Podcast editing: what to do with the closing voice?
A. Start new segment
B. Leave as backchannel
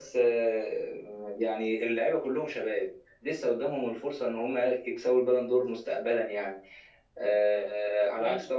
B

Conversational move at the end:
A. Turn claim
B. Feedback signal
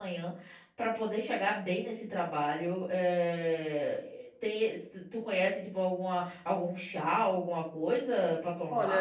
A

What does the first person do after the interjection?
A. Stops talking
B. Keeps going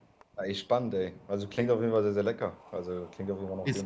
A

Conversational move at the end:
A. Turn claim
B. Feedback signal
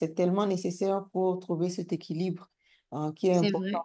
B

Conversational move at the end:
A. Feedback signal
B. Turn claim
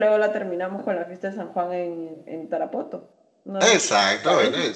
B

